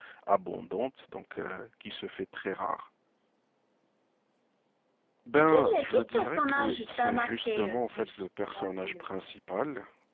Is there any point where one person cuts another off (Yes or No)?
Yes